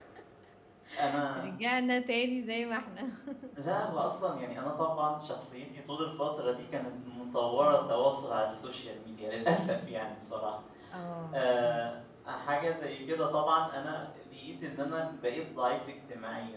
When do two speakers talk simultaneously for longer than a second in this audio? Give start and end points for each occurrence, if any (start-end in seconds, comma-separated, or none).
none